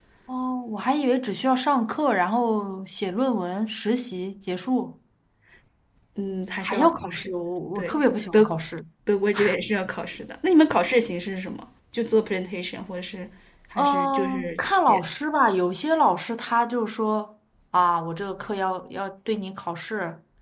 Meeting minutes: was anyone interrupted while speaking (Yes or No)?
Yes